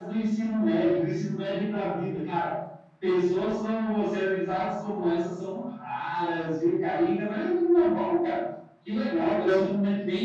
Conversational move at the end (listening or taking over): listening